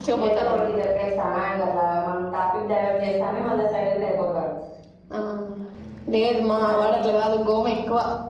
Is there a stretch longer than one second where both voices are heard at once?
No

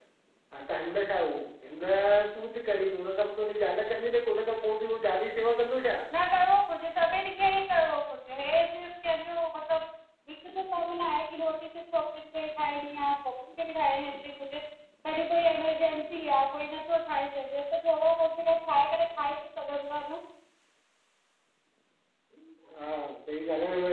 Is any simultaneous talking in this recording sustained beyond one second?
No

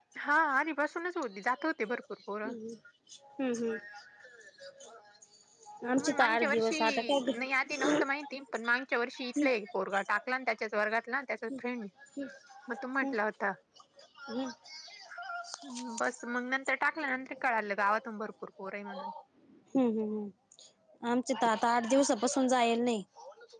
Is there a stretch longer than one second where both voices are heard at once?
Yes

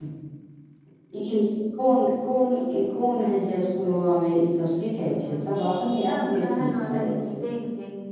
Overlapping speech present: Yes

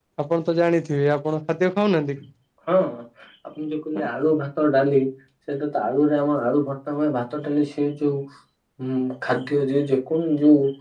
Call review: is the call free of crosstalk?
Yes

